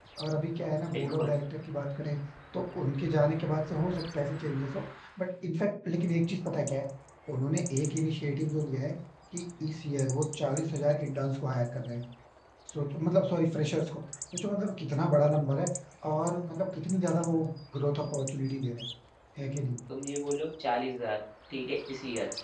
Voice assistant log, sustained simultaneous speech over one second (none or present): none